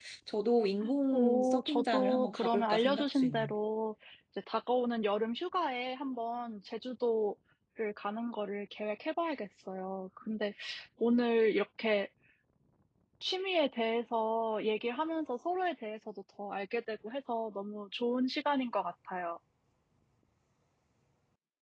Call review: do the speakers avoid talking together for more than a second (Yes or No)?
No